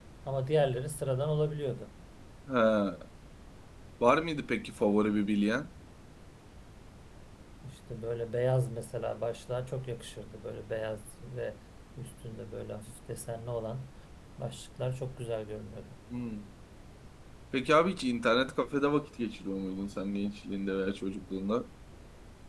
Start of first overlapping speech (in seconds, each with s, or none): none